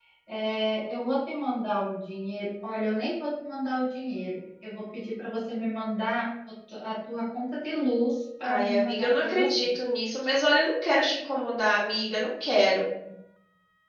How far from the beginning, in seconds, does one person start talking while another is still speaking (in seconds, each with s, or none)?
8.4 s